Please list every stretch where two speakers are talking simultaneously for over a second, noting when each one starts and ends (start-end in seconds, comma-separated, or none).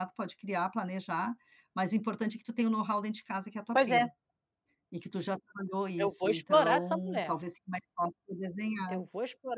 6.0-7.3